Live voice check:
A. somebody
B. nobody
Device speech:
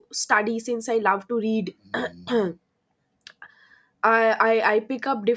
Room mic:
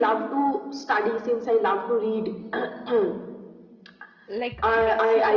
A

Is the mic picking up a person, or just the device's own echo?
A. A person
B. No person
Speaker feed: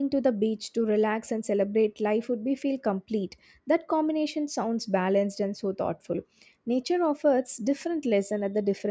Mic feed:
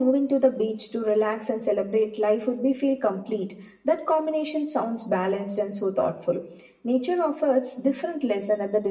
B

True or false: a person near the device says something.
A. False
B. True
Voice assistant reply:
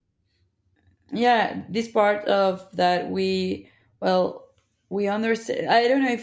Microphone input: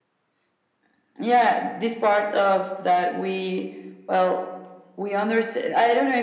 A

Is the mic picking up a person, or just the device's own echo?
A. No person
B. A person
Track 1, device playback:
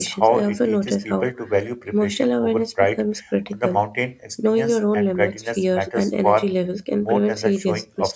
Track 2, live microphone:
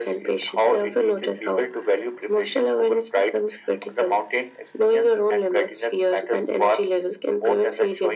A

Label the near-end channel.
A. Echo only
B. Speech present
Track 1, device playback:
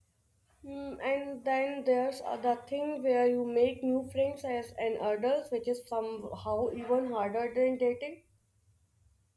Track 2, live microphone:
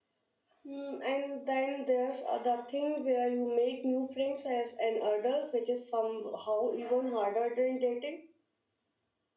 A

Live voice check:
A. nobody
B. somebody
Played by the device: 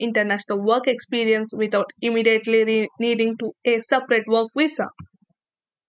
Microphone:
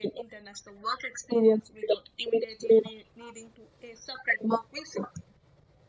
A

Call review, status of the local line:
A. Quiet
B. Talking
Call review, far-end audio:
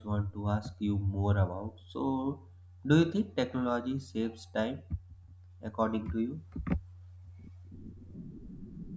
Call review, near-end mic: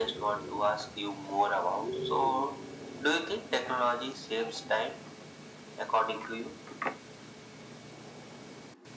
A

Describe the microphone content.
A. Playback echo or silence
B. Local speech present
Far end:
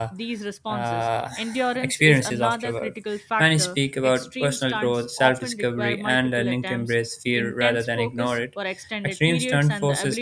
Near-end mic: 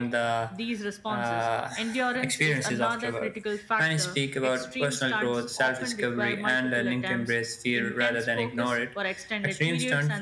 A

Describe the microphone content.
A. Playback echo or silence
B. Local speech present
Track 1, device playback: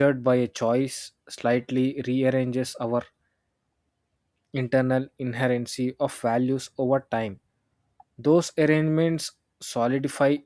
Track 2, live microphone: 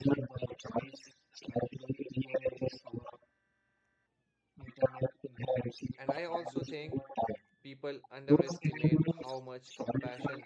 B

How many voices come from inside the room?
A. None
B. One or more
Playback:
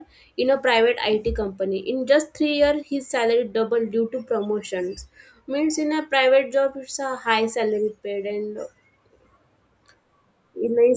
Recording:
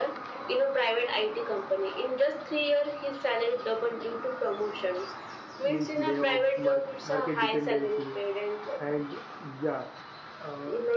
B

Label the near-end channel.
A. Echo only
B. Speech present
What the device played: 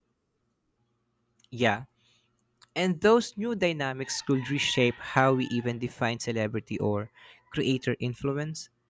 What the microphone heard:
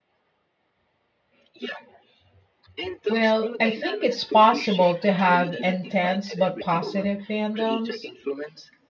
B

